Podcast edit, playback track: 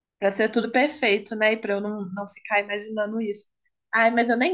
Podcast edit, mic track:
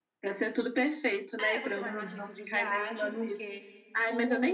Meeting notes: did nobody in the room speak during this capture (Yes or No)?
No